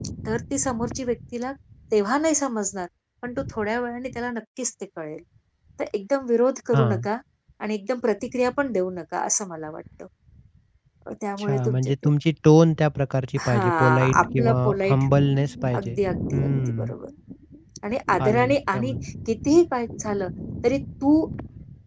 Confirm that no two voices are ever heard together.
No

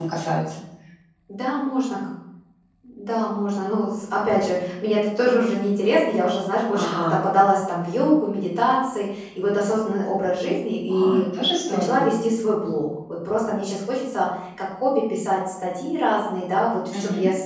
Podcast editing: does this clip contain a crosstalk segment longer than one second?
No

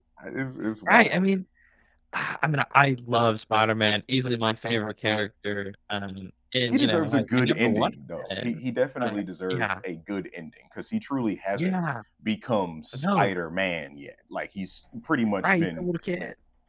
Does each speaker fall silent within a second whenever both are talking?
No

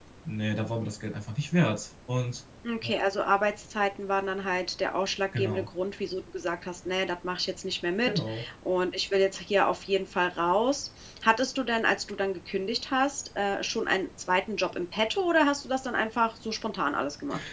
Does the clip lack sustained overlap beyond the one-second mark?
Yes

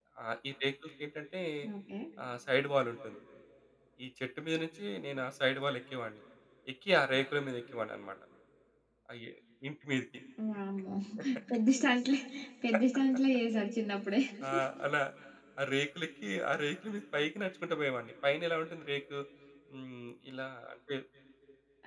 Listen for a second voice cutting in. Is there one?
No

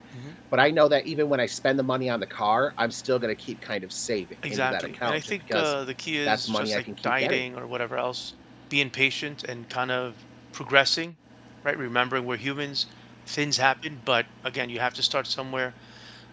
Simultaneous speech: Yes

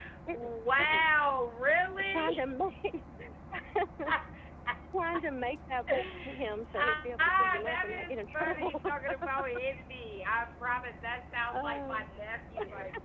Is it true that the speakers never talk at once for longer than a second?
No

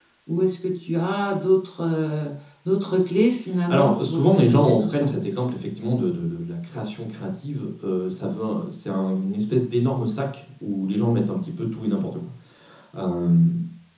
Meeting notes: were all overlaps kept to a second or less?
No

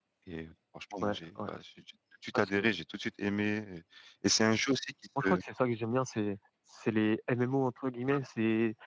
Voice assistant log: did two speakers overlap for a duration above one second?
No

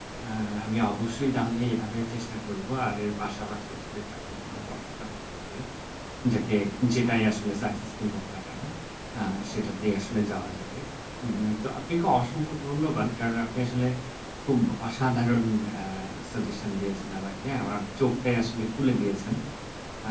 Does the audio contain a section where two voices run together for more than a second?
No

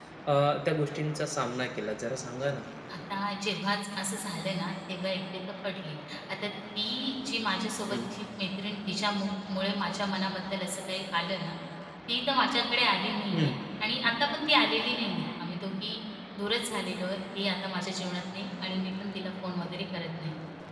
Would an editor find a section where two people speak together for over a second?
No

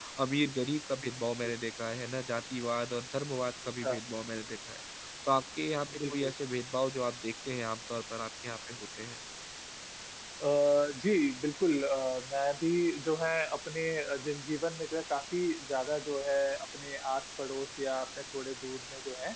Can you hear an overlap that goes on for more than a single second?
No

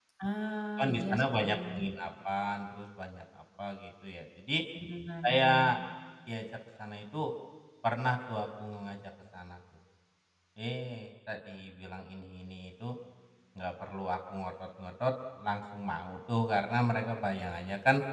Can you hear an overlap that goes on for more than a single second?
Yes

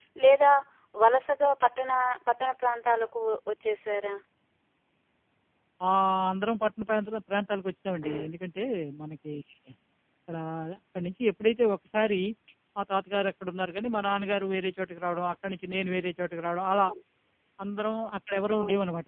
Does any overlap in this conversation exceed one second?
No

